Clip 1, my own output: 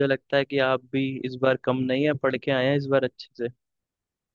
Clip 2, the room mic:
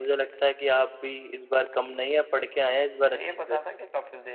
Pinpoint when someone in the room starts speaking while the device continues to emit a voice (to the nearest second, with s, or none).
3 s